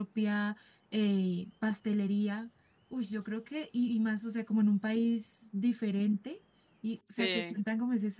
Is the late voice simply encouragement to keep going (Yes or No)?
Yes